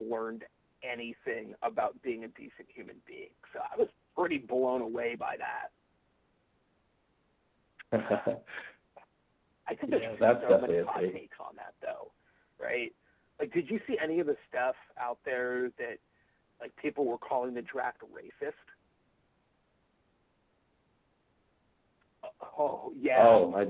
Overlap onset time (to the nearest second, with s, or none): 10 s